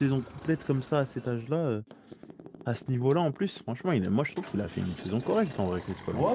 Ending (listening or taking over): taking over